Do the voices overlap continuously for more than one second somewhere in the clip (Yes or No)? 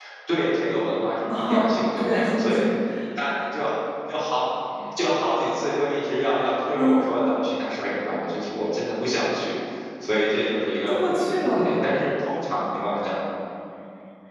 Yes